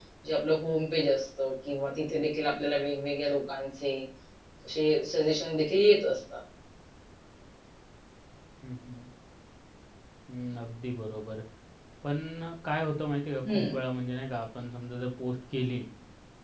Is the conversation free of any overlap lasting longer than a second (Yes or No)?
Yes